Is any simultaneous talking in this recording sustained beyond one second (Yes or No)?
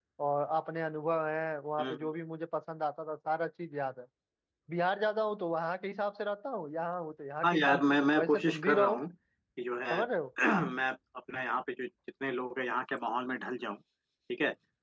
Yes